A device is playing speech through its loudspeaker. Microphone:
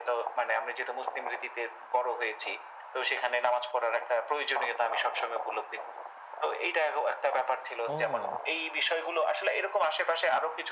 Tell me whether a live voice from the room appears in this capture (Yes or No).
Yes